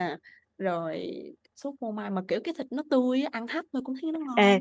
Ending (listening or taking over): taking over